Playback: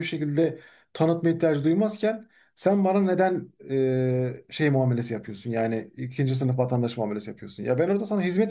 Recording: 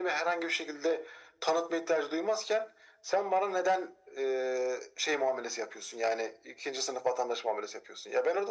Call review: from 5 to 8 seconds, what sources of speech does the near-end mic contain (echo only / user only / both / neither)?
echo only